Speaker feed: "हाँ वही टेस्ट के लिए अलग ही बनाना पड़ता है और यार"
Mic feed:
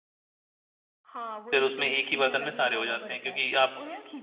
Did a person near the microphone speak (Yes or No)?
Yes